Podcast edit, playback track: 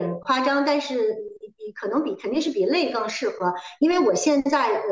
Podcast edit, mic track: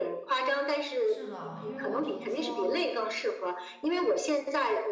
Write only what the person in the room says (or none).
是的，因为我听说，